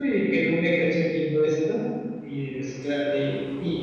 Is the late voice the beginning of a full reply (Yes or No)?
No